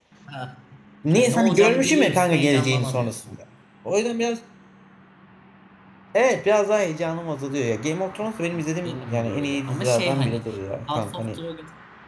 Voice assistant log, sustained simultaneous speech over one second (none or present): present